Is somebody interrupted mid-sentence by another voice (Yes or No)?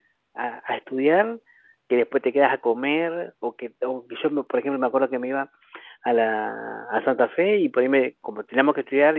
No